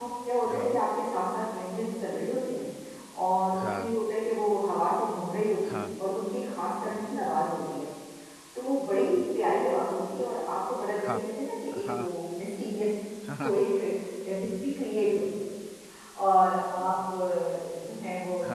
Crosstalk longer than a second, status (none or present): none